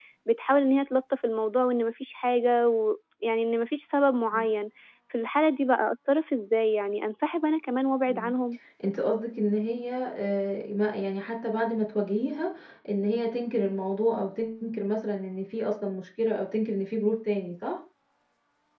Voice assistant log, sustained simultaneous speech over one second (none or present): none